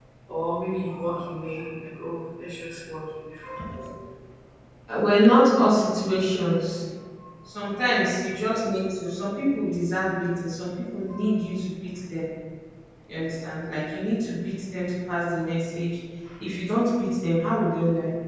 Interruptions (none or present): none